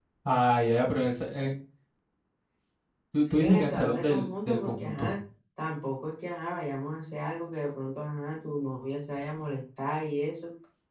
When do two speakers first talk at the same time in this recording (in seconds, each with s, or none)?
3.3 s